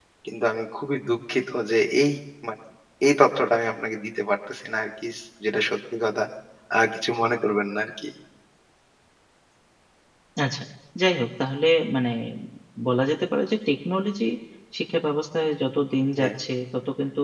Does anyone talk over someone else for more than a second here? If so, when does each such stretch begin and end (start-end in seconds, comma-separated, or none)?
none